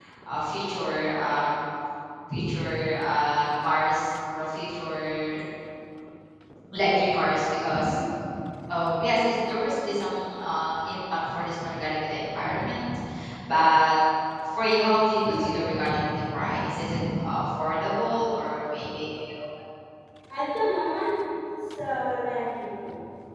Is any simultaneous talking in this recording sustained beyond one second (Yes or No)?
No